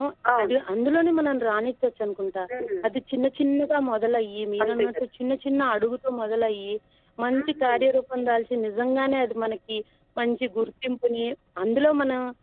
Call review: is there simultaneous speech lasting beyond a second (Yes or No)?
No